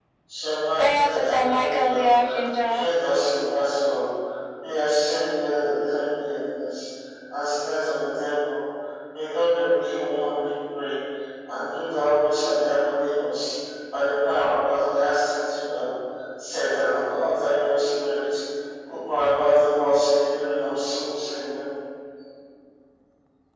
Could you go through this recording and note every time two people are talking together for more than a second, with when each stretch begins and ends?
0.8-2.1

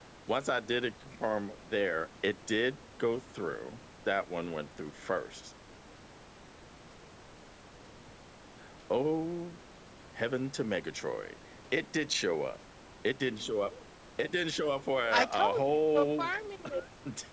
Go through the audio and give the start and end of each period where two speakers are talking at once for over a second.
15.1-16.3

